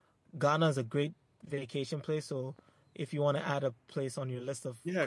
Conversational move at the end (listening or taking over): taking over